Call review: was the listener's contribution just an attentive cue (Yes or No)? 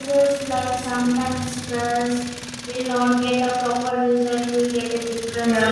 No